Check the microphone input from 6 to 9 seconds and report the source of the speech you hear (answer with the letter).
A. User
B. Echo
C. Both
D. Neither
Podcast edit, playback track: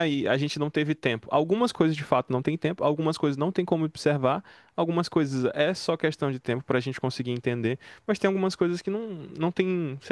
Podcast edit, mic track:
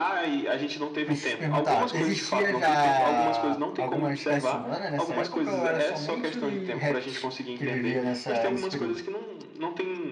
C